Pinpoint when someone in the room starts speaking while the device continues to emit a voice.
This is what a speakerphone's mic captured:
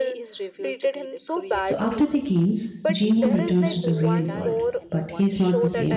1.6 s

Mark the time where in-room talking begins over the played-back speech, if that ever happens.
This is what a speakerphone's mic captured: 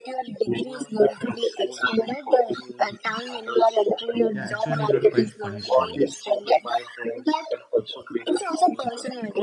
4.3 s

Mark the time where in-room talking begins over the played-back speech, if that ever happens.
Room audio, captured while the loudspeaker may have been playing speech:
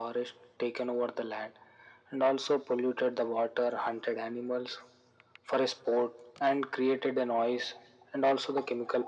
none

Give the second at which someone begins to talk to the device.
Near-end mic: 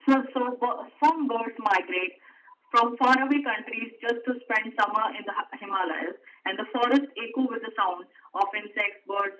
none

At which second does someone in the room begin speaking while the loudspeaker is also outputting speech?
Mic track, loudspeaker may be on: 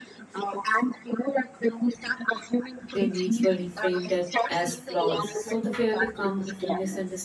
2.9 s

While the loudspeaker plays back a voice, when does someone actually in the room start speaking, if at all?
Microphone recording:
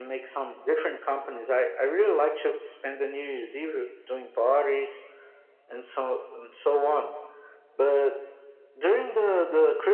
none

